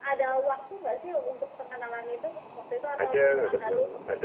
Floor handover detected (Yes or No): Yes